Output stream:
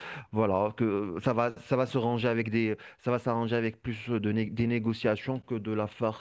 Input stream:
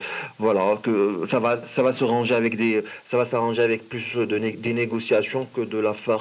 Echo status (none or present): present